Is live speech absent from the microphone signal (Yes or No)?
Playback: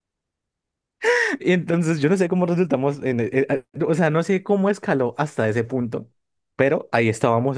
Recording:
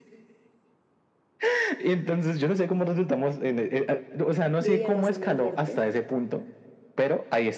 No